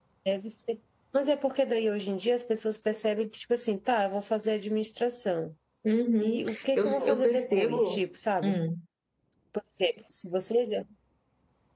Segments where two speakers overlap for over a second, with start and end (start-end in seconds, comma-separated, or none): 6.2-8.0